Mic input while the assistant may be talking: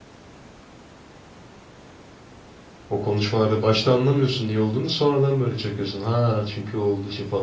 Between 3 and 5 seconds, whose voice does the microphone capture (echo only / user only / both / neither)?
user only